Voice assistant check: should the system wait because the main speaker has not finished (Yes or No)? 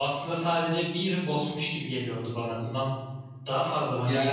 No